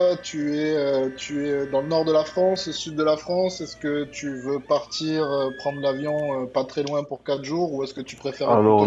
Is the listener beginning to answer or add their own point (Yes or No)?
No